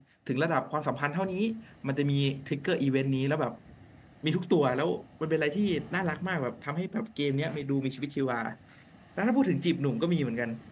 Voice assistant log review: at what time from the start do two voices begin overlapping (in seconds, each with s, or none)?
none